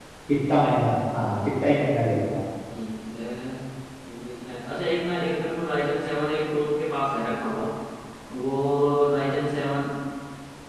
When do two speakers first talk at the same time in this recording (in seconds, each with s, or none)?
none